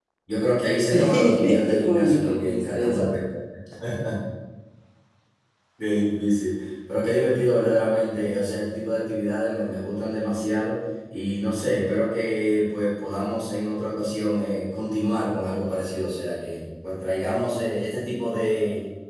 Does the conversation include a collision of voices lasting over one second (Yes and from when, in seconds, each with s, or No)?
Yes, from 0.9 s